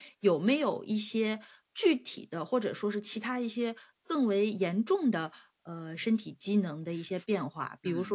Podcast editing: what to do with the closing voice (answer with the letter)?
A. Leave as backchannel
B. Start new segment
A